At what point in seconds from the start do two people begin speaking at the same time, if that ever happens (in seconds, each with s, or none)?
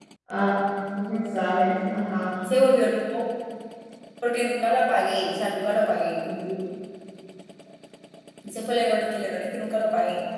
none